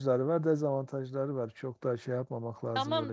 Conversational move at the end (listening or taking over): taking over